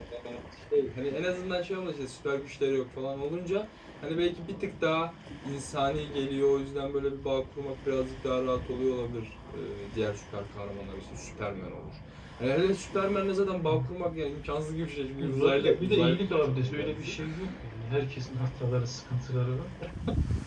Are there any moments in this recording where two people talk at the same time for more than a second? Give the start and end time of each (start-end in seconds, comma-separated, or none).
15.2-17.1